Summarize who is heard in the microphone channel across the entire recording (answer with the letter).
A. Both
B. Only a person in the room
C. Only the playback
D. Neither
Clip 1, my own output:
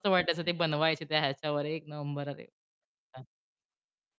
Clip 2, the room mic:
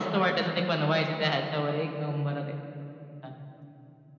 C